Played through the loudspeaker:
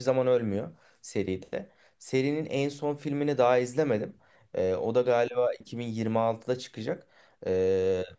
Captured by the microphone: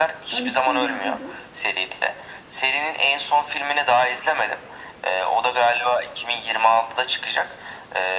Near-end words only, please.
Ben ikisini de izledim.

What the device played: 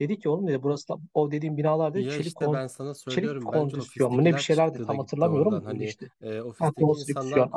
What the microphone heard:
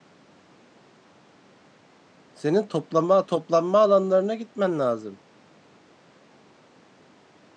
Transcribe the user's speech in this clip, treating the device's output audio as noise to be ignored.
senin toplama toplanma alanlarına gitmen lazım

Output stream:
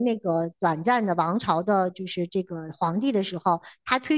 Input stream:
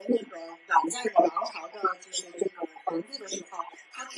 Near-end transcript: none

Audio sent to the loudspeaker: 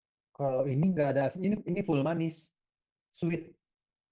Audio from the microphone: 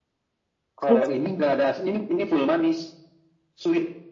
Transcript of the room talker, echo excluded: kerupuk

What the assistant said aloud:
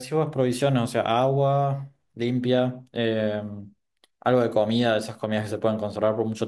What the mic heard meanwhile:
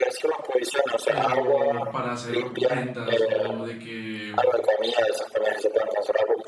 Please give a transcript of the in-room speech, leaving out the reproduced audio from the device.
pero para hacer vendas o de que,

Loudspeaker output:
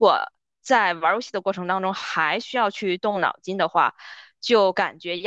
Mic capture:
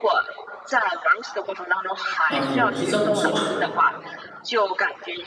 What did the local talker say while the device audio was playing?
啊、也不是这么说。

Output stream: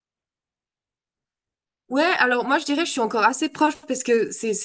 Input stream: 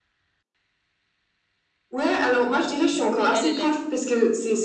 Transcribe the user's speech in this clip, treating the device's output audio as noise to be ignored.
à Amsterdam. Mais elle, elle est,

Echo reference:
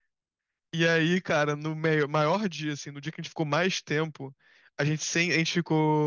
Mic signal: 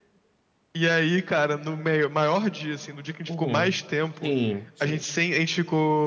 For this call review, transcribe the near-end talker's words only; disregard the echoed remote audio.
Uhum. Sim, sim.

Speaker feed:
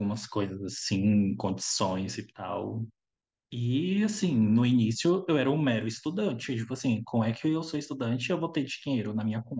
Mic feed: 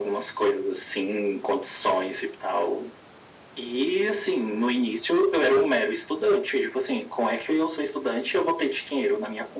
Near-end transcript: none

